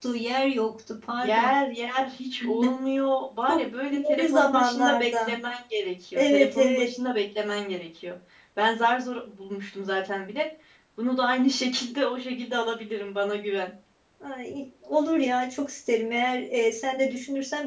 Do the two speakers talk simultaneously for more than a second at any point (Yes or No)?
Yes